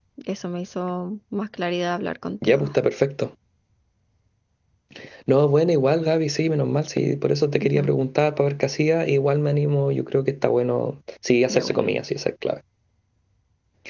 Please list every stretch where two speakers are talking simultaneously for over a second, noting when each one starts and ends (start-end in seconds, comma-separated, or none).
none